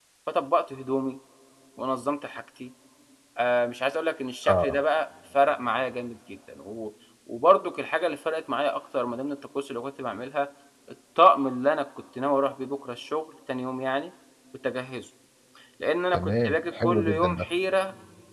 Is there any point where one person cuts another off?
Yes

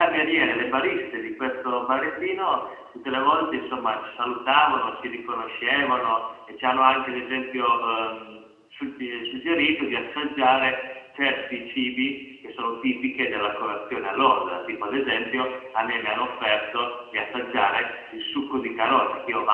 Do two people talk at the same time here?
No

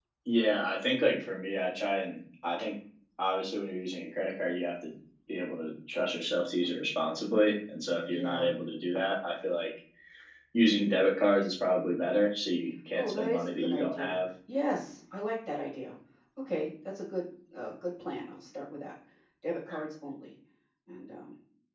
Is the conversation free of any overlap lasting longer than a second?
No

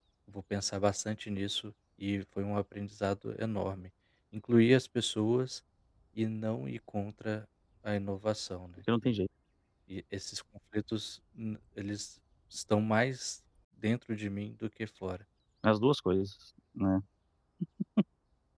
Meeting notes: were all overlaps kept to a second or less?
Yes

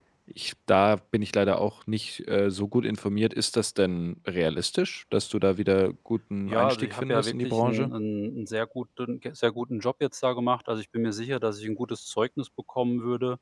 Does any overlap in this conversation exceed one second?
Yes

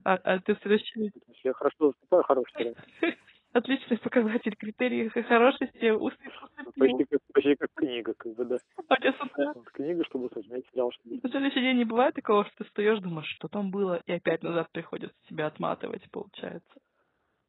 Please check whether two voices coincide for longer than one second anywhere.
No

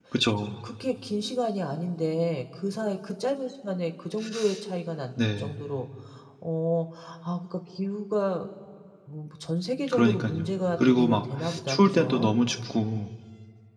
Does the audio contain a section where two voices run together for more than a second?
Yes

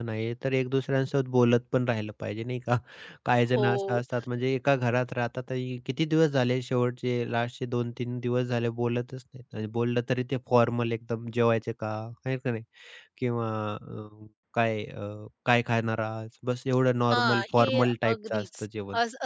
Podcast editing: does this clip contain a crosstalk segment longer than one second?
Yes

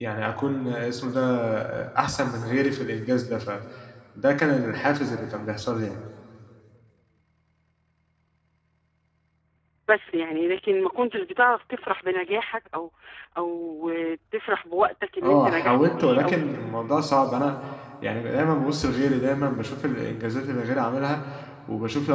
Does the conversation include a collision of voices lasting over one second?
Yes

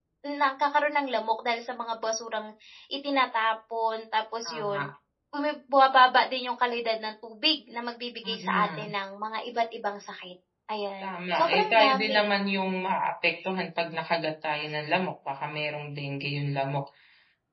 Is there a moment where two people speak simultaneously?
Yes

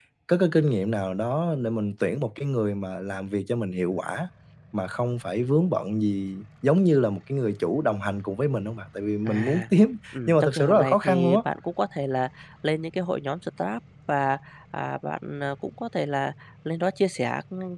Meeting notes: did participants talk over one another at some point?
Yes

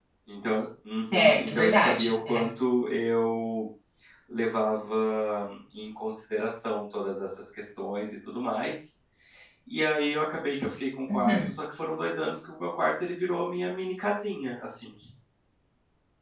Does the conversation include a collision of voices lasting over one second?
Yes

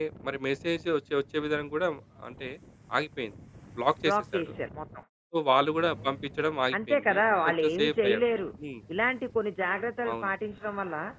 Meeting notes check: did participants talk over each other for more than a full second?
Yes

